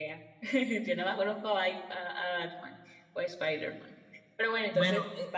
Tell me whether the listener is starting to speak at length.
Yes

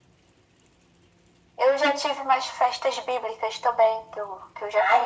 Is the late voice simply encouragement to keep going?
No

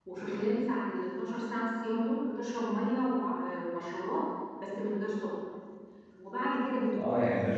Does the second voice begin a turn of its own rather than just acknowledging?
Yes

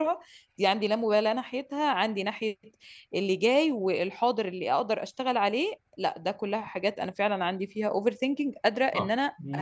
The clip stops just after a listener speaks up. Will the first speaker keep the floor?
No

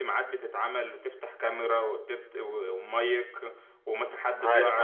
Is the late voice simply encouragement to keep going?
Yes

